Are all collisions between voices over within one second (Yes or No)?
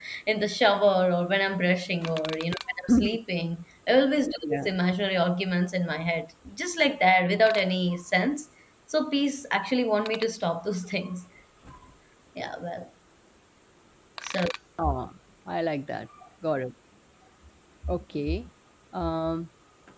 Yes